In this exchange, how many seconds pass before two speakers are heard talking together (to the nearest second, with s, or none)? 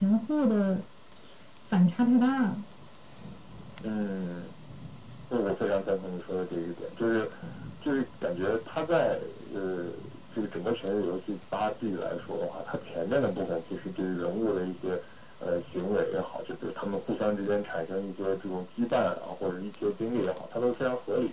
none